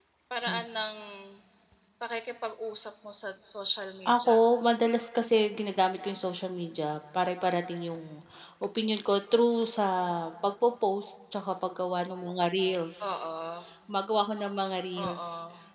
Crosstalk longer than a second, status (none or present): none